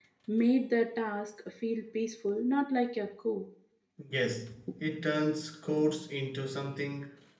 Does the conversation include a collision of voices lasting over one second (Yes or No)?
No